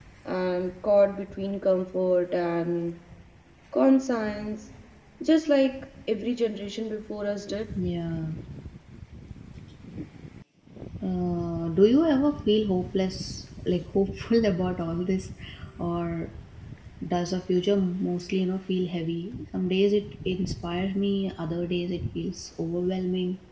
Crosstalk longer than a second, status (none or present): none